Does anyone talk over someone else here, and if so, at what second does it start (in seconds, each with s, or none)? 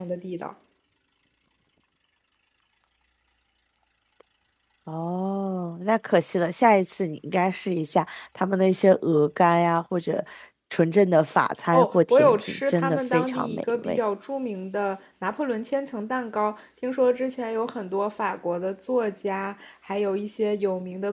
11.7 s